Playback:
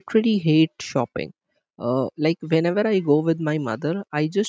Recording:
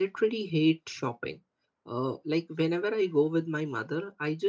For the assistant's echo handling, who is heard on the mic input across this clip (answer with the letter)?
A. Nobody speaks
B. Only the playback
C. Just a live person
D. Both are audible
B